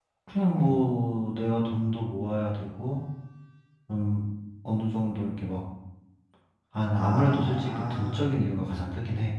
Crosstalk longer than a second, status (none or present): present